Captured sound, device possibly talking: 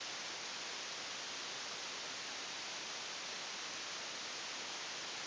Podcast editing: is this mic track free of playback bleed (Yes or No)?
Yes